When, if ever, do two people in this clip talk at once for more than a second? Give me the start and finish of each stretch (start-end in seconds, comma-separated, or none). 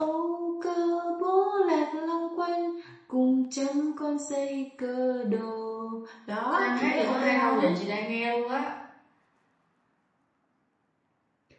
6.5-7.8